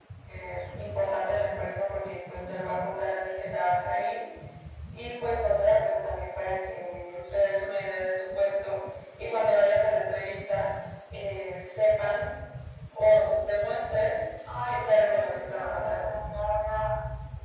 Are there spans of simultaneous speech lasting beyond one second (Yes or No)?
Yes